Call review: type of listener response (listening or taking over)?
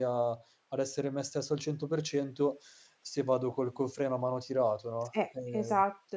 taking over